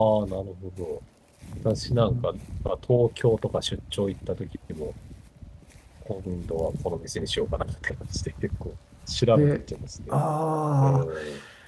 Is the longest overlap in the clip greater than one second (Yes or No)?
No